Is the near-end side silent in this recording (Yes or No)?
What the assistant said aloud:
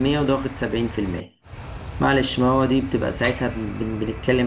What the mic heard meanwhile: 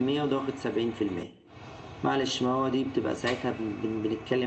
Yes